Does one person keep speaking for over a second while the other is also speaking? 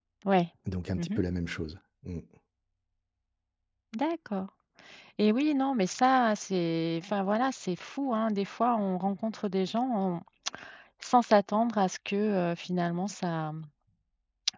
No

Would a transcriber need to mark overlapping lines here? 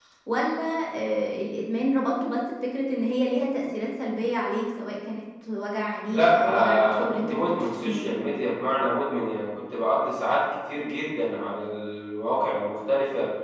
Yes, from 6.1 s

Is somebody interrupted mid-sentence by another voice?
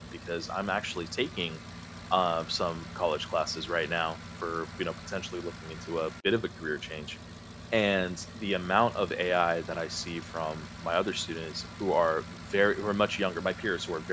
No

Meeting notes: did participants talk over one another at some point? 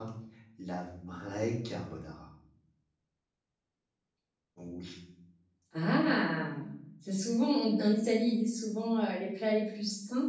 No

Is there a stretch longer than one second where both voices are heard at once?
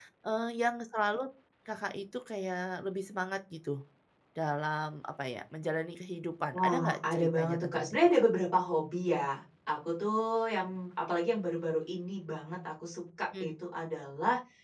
Yes, from 6.5 s

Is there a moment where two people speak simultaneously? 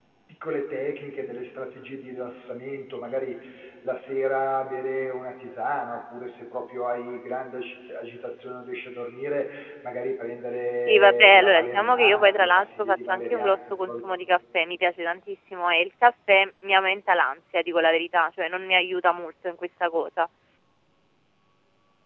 Yes, from 10.8 s

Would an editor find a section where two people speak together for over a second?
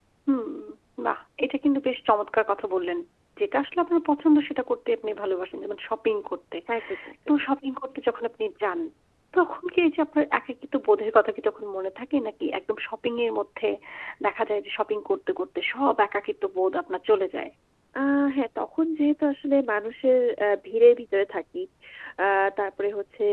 No

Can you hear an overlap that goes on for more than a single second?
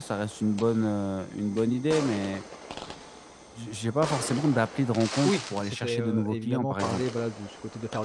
Yes, from 5.2 s

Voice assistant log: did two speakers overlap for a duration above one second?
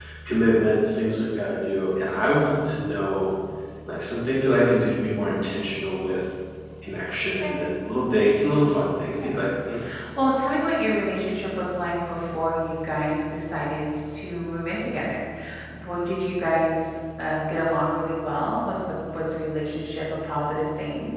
No

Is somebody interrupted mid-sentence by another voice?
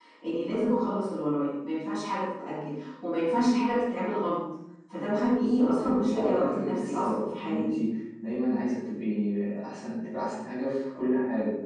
Yes, from 5.4 s

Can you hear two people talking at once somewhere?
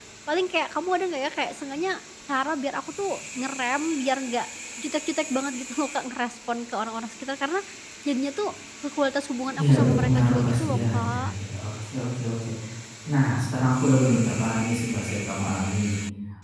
Yes, from 9.6 s

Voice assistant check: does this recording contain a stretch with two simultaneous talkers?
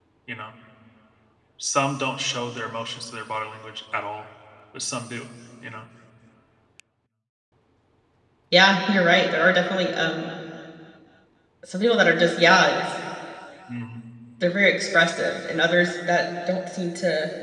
No

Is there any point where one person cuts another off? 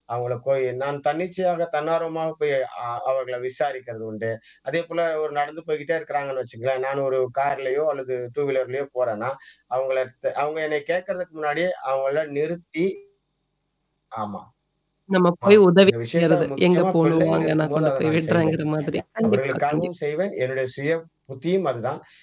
Yes, from 15.5 s

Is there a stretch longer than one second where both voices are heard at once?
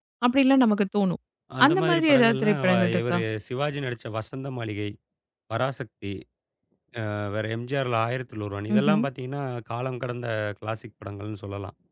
Yes, from 1.7 s

